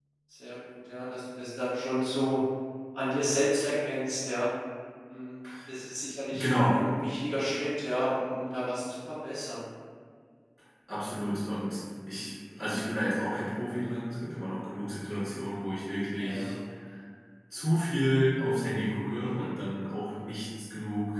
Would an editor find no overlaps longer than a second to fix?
Yes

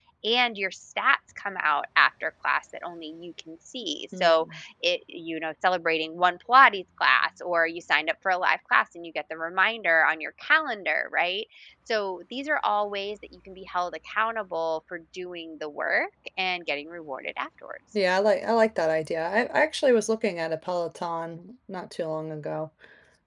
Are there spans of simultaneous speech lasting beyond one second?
No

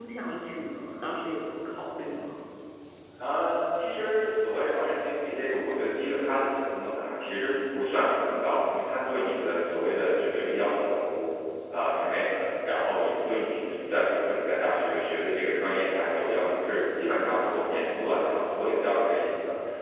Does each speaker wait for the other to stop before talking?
Yes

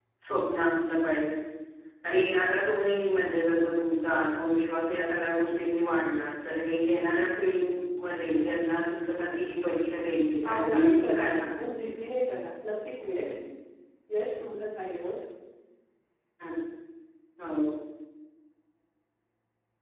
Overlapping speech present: Yes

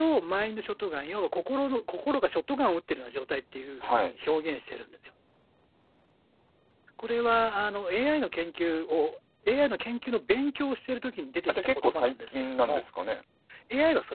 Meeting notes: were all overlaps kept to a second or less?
No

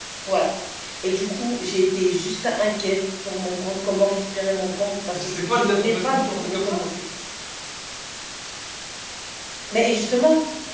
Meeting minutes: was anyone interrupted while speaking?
Yes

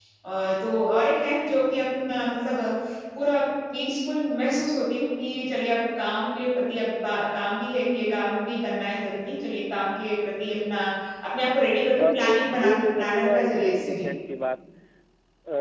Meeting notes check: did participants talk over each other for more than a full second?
Yes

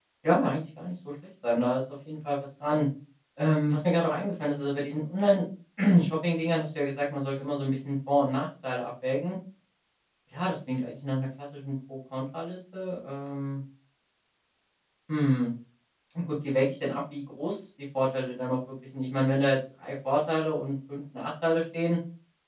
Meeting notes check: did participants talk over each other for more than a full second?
No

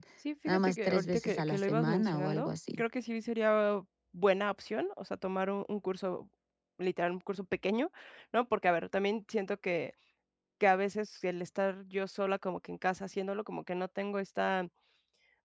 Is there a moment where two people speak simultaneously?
Yes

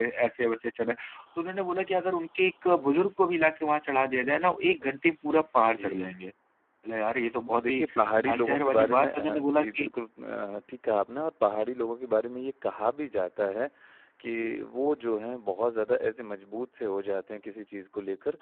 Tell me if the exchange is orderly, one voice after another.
No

